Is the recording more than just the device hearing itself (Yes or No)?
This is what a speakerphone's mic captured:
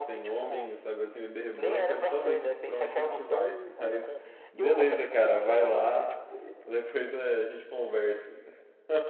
Yes